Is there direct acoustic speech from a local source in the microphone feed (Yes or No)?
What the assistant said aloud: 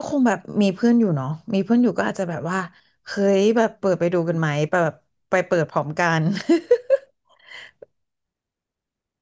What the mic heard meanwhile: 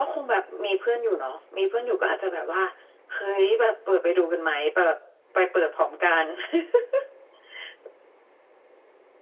No